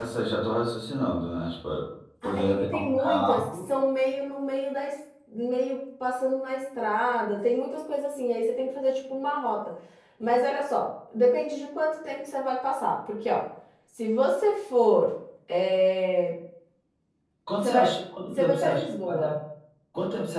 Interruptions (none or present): present